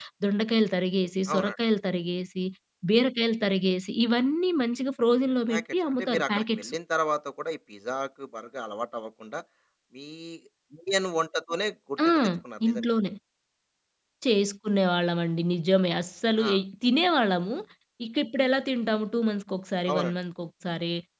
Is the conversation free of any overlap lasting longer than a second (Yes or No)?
No